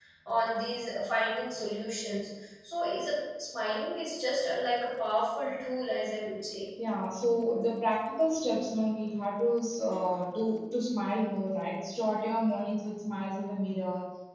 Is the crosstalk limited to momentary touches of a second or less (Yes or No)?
Yes